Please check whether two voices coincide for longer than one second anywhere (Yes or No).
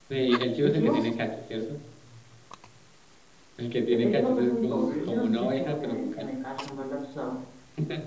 Yes